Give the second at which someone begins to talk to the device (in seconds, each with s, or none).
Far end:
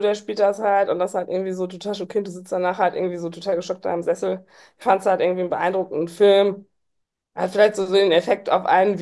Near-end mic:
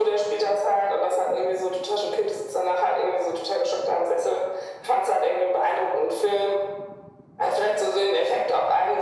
none